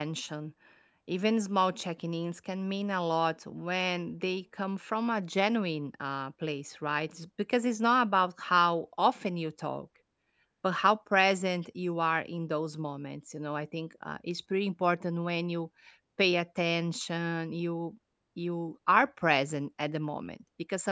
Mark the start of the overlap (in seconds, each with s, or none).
none